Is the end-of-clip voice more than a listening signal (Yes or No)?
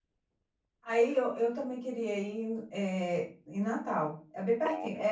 Yes